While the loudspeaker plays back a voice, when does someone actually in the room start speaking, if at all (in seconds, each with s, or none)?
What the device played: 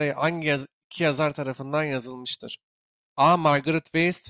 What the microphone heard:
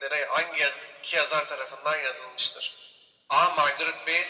none